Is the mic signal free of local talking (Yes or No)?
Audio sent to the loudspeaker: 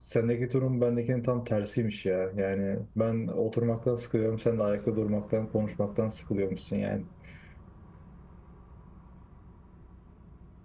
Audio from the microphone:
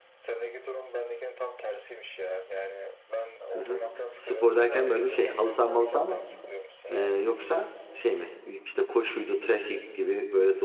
No